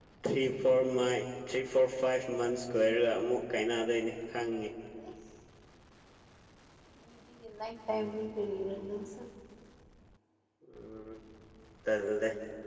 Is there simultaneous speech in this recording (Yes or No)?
No